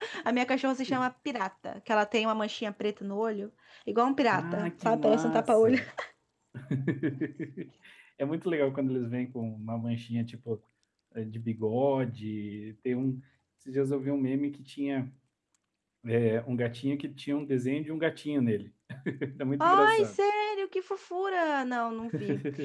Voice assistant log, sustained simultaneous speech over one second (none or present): present